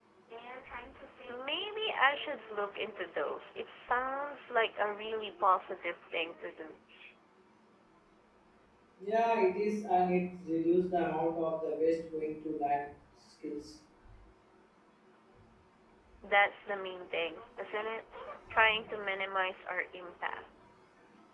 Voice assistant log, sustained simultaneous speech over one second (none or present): none